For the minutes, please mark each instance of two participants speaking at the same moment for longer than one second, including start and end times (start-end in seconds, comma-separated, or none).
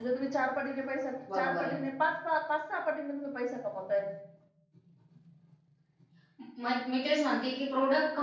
none